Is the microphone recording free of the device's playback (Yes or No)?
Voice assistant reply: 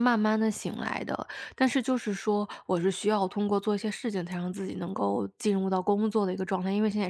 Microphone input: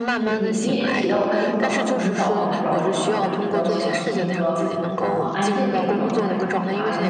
No